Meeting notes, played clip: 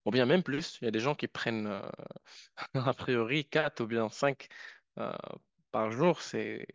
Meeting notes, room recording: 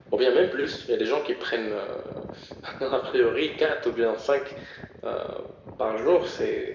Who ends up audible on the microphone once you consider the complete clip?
echo only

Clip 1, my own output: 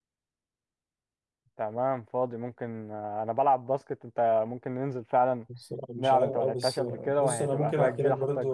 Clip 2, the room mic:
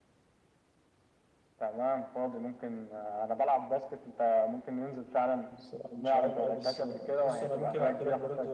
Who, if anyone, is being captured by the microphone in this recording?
echo only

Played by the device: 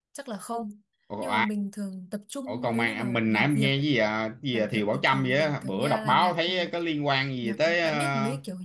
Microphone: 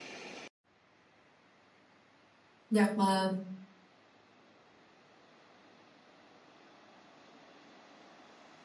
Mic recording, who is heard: user only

